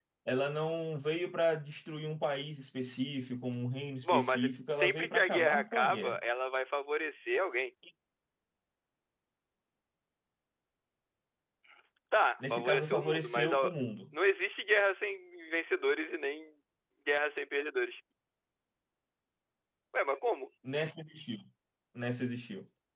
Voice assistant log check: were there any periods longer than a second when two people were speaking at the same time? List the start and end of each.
4.8-6.2, 12.5-13.7

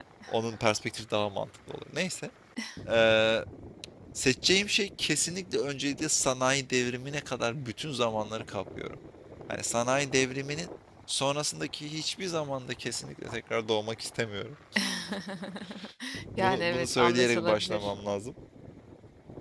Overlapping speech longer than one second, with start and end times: 16.4-17.9

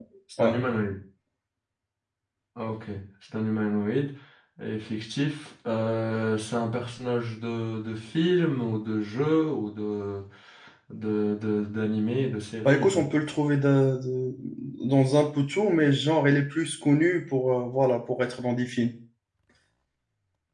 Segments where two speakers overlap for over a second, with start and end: none

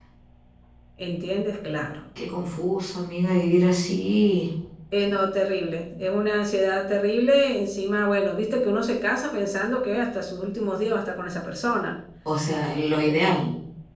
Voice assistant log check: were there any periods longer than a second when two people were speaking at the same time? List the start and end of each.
none

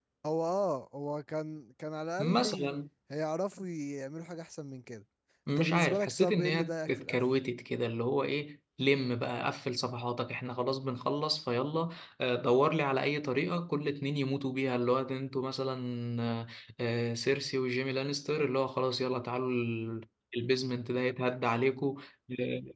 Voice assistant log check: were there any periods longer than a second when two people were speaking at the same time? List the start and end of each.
5.5-7.2

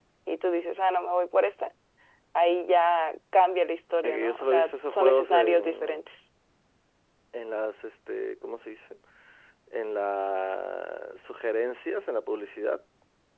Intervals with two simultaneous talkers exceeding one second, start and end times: 4.0-6.0

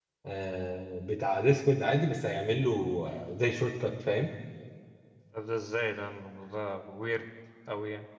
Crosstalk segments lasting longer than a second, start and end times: none

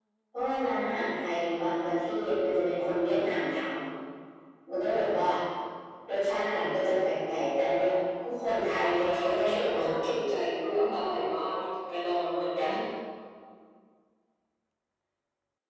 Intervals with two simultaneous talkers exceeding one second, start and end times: 8.4-9.8

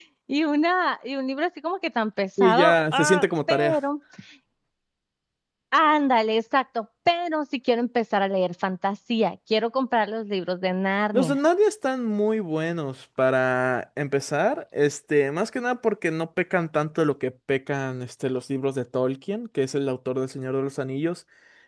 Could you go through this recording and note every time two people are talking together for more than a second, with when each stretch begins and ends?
2.4-3.8

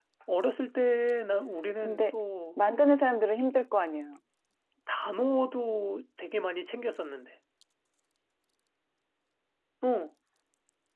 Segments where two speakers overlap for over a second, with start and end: none

